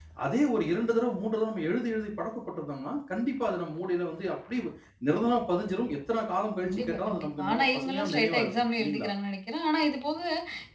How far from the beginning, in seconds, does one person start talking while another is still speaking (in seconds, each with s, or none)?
6.6 s